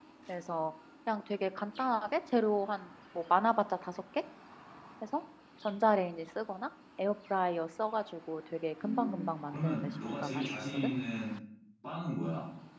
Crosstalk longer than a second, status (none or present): present